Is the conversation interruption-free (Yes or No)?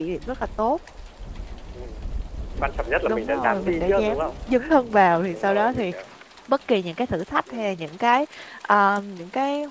No